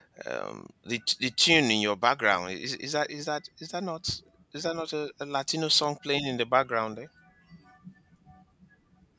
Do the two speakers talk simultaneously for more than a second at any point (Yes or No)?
No